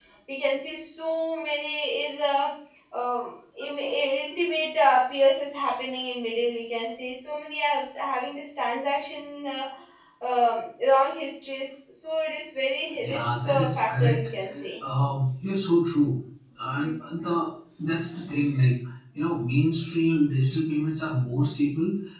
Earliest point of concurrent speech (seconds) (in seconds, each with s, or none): 13.0 s